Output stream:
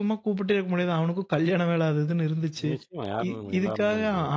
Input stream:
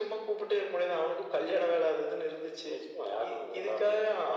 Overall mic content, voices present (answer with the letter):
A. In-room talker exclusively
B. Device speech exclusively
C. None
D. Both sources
B